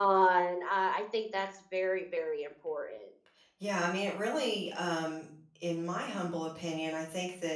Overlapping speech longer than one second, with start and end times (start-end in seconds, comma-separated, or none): none